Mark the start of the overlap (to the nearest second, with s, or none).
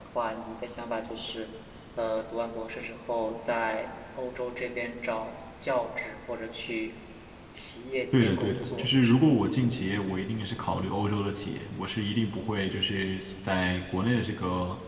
8 s